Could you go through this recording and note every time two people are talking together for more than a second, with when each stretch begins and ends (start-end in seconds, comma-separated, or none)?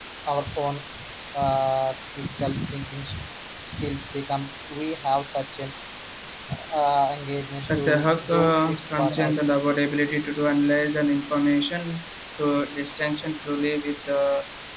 7.7-9.5